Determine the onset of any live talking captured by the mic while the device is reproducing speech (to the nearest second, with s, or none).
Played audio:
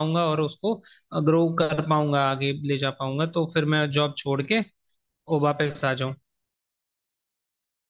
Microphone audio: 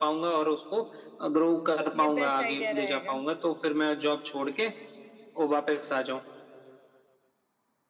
2 s